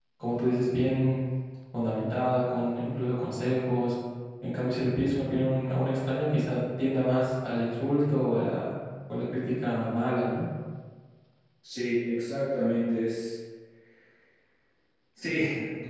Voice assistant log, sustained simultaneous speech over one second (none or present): none